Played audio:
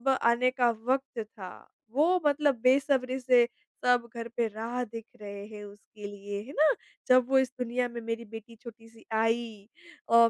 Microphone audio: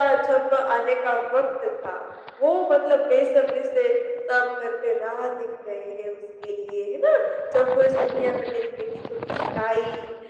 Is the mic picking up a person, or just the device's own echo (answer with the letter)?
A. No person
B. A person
A